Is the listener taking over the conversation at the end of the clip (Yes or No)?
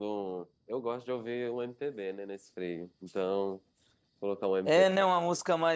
Yes